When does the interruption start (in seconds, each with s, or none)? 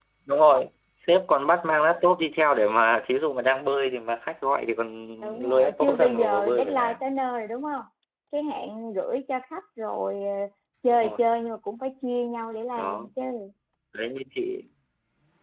5.2 s